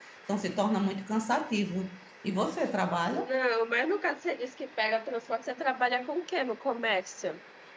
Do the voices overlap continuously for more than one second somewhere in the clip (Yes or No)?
No